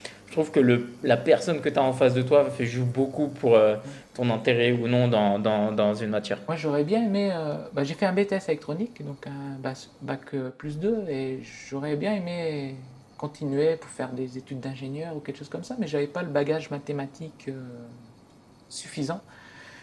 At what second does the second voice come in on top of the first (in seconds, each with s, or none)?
none